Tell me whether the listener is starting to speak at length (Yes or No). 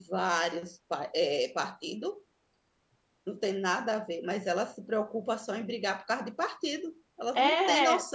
Yes